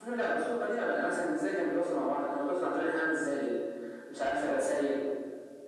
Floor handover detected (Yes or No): No